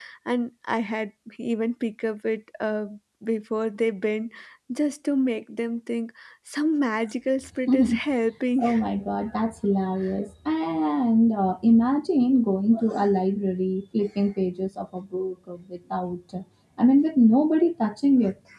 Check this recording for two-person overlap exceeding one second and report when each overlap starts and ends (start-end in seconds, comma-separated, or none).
none